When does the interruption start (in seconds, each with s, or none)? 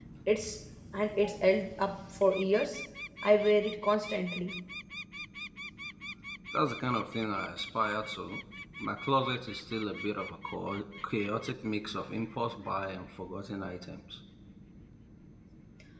none